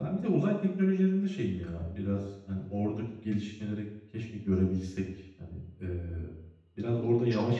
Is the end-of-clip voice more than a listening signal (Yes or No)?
Yes